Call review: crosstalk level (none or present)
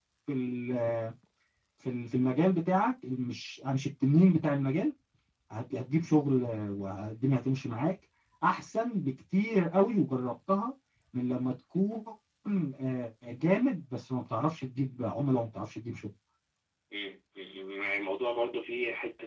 none